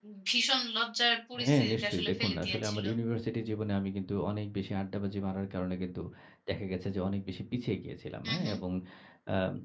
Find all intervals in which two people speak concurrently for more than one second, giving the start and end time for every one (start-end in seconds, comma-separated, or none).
1.4-2.8